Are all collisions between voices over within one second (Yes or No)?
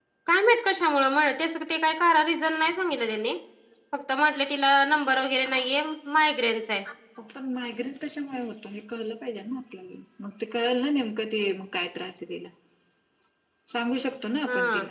Yes